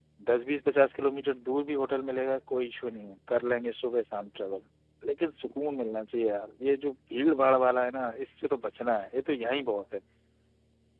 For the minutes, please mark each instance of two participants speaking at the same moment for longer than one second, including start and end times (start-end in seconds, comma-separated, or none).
none